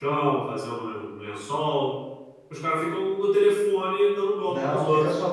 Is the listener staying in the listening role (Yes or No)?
No